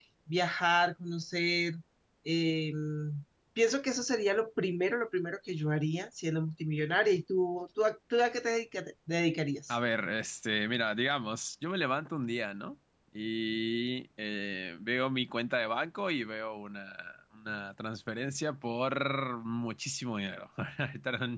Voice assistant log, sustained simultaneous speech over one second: none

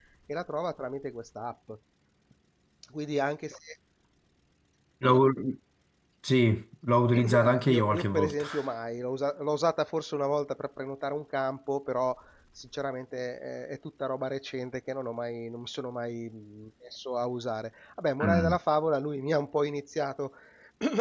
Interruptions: present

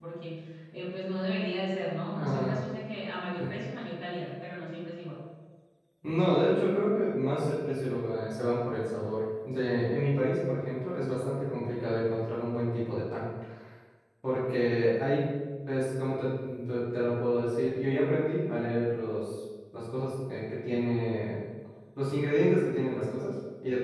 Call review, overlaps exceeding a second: none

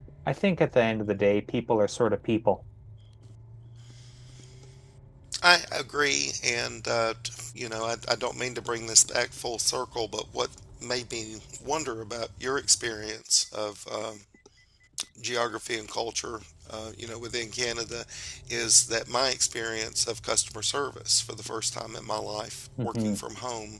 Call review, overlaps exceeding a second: none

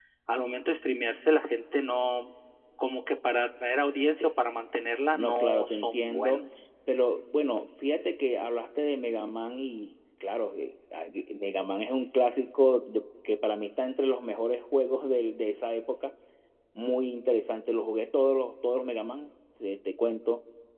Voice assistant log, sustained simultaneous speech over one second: present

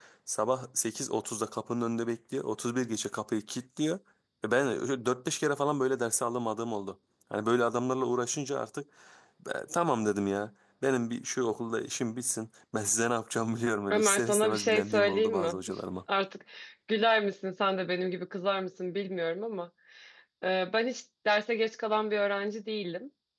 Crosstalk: present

